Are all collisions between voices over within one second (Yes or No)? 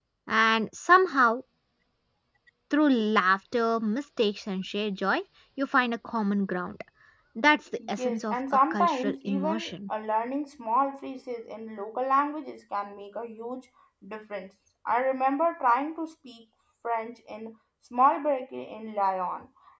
No